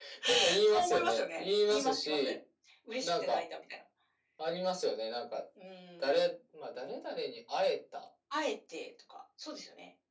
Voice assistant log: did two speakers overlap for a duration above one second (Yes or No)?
Yes